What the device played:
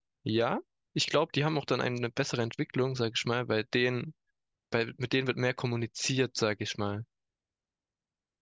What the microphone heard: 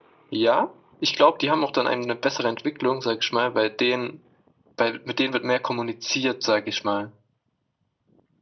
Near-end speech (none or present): none